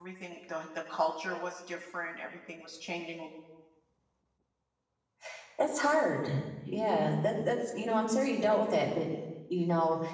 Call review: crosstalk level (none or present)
none